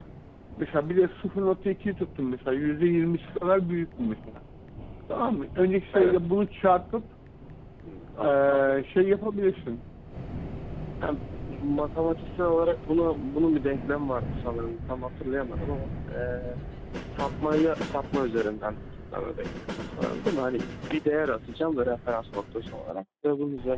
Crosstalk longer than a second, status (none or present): none